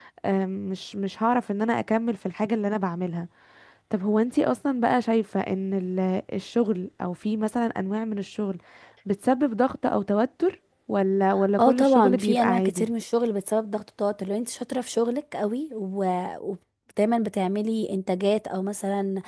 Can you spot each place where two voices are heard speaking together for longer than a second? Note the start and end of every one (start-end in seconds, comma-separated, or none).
11.6-12.9